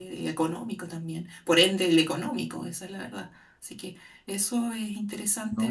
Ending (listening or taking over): taking over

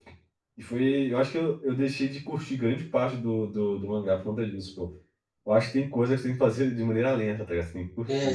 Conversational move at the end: taking over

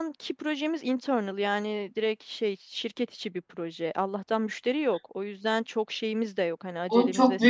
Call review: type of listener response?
taking over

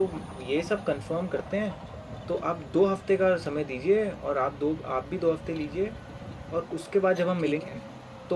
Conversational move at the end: listening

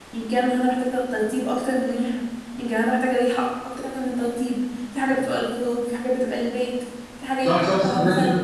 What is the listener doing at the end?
taking over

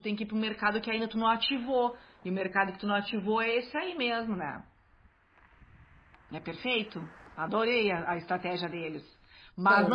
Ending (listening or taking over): listening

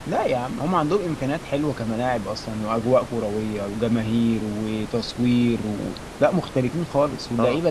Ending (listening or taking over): taking over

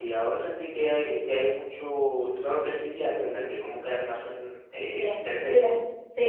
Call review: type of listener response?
taking over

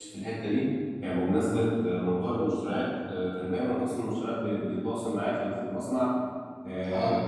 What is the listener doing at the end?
listening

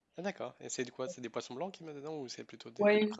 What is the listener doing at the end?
taking over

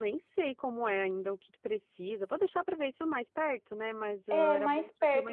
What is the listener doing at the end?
taking over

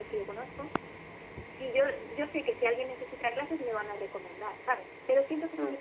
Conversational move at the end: listening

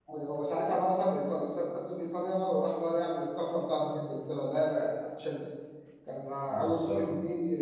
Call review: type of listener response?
listening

